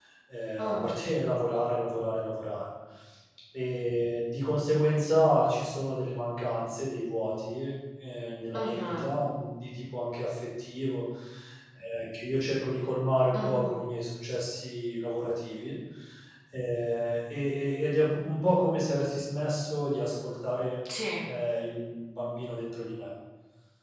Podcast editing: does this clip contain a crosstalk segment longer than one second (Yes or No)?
No